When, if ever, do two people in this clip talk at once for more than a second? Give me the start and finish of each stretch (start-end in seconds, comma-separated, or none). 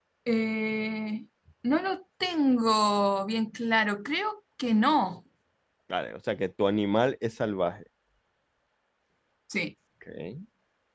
none